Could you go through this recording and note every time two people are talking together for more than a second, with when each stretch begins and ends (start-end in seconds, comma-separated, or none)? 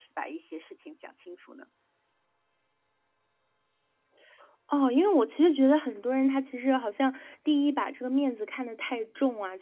none